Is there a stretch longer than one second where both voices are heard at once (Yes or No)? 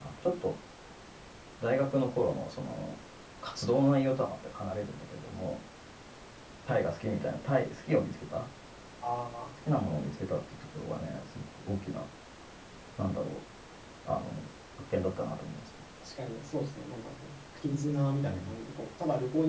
No